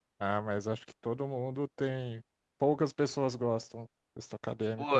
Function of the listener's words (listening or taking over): taking over